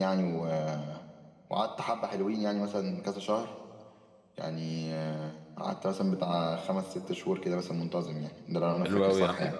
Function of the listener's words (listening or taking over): taking over